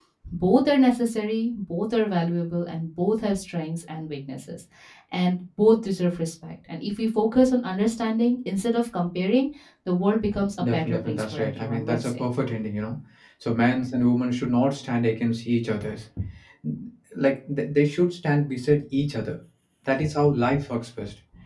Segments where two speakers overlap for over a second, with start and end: 10.6-12.2

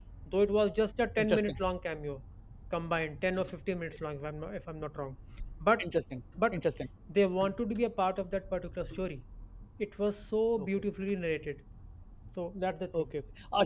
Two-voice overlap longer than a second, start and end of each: none

